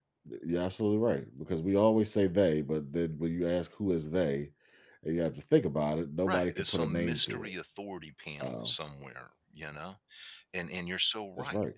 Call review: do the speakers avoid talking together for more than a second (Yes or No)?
No